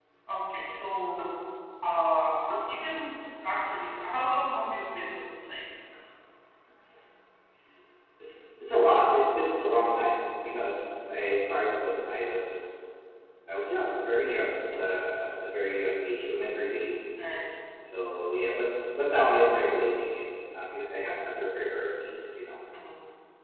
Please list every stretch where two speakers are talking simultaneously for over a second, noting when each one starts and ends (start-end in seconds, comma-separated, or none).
none